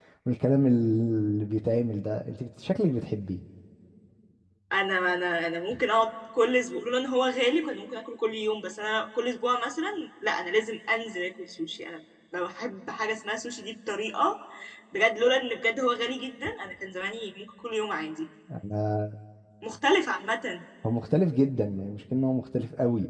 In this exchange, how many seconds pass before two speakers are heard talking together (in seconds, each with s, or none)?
none